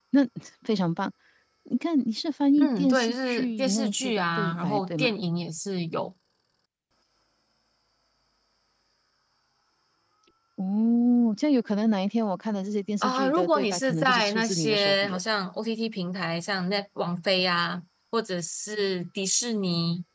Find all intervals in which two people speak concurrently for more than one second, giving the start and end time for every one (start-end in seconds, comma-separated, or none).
2.6-5.1, 13.0-15.2